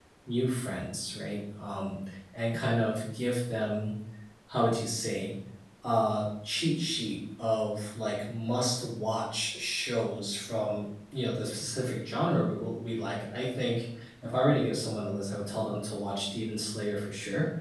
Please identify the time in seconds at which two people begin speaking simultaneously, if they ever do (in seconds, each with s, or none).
none